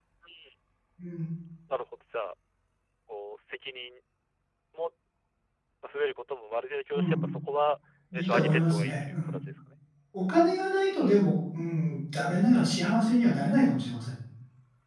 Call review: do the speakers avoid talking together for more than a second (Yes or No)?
No